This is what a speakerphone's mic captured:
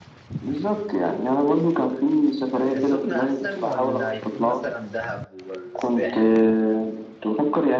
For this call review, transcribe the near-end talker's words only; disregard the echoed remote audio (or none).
السخنة أحسن ولا يكون مثلا دهب ولا الساحل